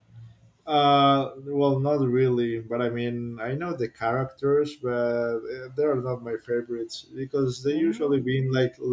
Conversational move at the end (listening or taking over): listening